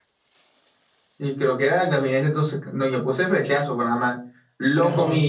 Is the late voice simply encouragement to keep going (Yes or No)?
Yes